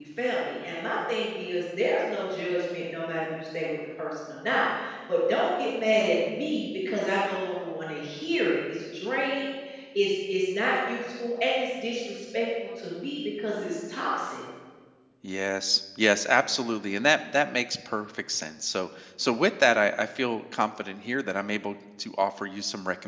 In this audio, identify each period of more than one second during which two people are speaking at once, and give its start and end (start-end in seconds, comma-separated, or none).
none